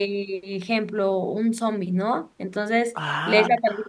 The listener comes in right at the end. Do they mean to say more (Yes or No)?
No